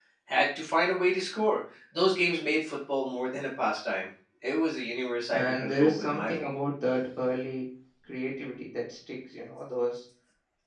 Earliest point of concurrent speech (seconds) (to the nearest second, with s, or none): 5 s